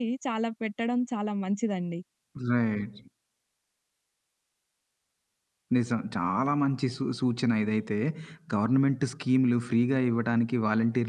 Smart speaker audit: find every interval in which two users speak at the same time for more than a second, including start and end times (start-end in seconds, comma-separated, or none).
none